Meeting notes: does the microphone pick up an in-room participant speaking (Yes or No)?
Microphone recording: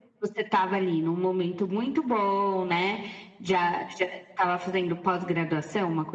No